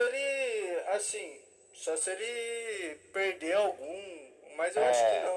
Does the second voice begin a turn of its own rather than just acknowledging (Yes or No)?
Yes